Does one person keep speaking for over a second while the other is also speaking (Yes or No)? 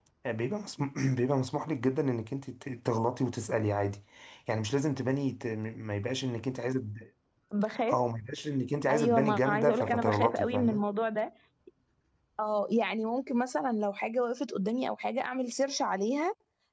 Yes